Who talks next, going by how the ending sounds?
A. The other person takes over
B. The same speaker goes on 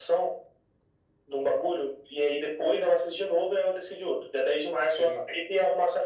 B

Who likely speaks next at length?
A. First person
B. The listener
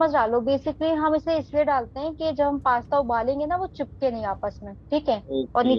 B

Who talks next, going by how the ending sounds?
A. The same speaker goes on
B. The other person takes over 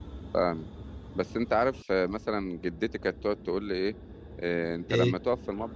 A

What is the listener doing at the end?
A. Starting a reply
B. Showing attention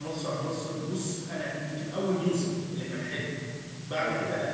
B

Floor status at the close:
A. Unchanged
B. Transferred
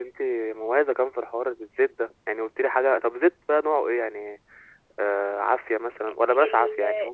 B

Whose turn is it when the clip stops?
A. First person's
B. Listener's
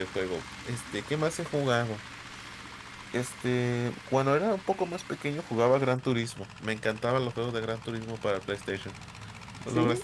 B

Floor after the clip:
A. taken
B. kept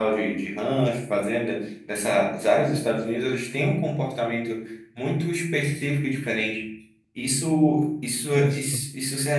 B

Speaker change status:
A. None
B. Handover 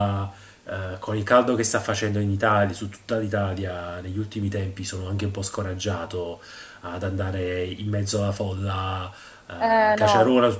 A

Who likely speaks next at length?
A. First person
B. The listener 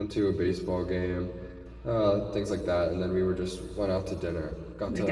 A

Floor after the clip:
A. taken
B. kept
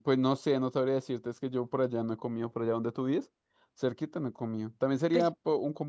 B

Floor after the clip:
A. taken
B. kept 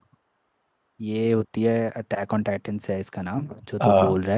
B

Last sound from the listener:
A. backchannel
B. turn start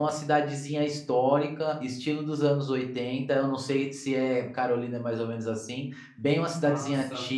A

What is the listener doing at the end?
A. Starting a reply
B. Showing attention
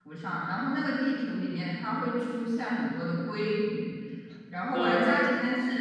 B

